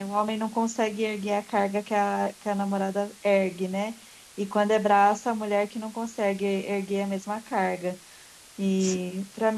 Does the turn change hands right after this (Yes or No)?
No